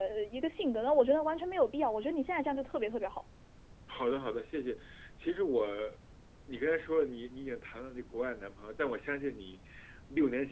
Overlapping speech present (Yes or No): No